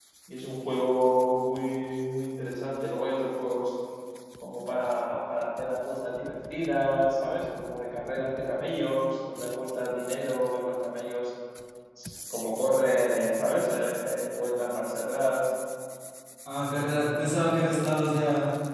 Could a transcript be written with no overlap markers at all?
Yes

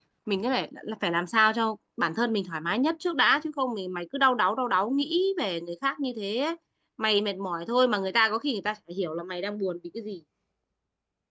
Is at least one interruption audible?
No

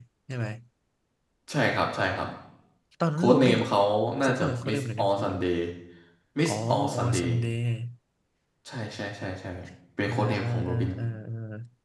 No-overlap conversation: No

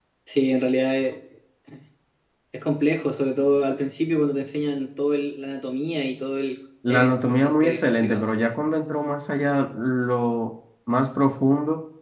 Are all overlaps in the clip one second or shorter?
No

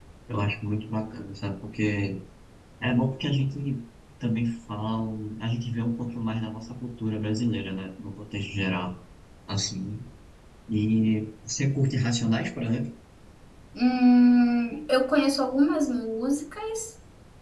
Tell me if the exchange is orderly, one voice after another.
Yes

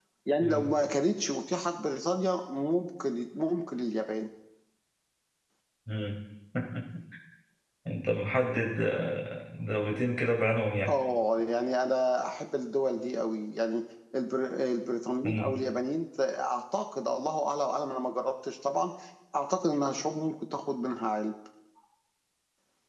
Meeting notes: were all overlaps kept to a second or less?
Yes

